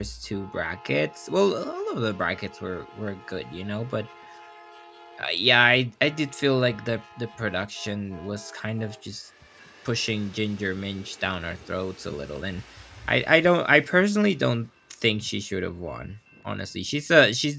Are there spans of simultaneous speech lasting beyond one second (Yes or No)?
No